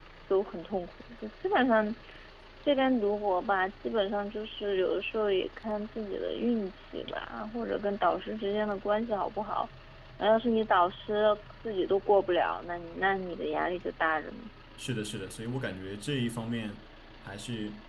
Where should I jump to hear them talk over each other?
none

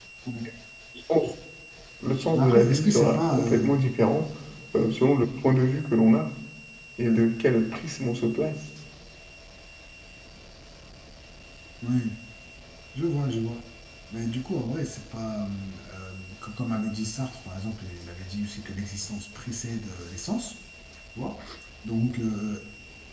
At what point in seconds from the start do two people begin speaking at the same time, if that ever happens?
2.3 s

